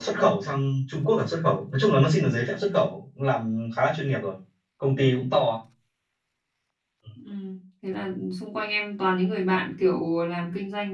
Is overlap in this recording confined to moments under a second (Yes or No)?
Yes